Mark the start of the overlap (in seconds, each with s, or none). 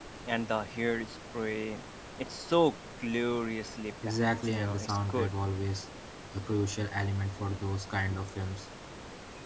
4.0 s